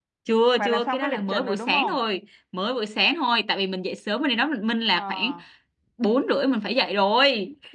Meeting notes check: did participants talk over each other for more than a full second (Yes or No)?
Yes